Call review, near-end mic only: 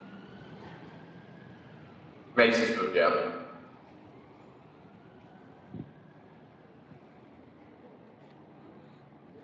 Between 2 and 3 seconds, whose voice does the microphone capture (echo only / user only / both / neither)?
user only